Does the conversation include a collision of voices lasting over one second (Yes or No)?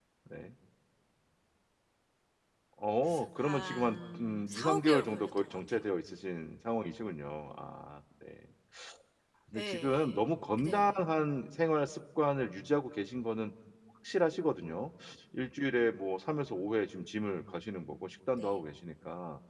Yes